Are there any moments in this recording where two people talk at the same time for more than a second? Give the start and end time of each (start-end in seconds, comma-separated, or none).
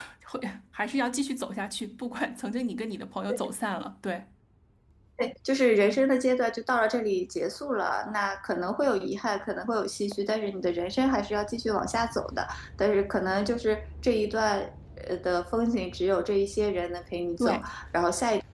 none